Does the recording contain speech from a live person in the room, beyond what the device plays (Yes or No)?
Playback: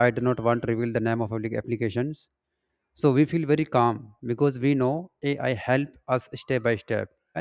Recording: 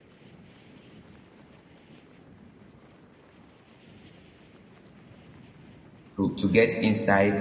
Yes